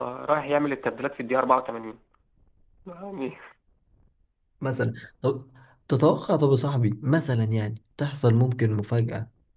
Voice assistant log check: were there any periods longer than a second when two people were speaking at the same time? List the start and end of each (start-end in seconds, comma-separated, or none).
none